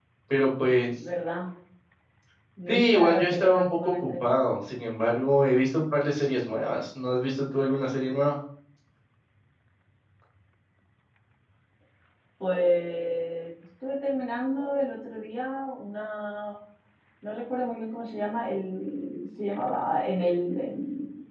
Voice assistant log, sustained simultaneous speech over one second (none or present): present